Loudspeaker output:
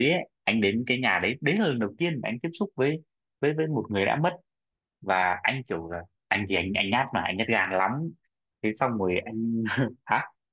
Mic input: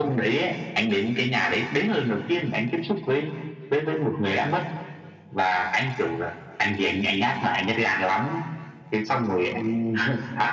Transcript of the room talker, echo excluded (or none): none